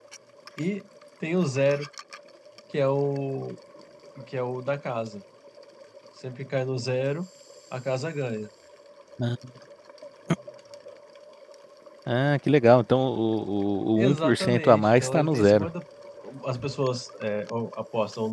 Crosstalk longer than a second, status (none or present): present